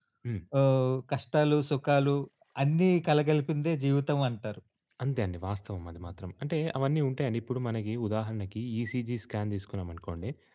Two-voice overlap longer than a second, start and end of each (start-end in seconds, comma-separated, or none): none